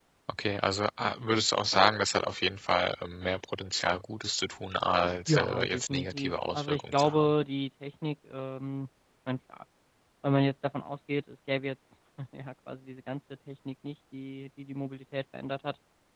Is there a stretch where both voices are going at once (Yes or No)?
Yes